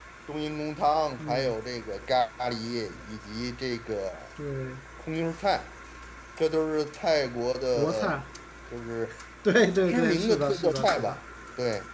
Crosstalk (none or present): present